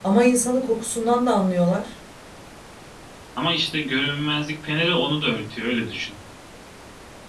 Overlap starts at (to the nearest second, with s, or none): none